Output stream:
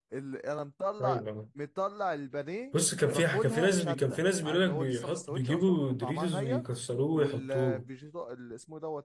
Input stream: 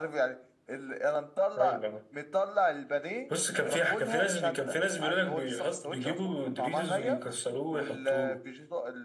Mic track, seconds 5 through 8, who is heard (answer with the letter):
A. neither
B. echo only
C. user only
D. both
B